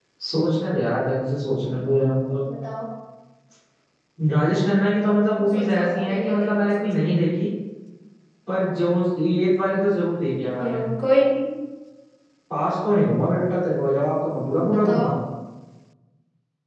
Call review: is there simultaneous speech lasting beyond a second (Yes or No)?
Yes